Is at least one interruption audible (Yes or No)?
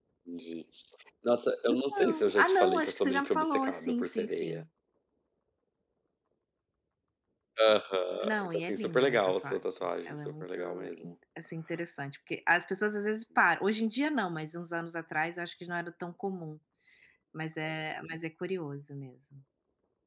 Yes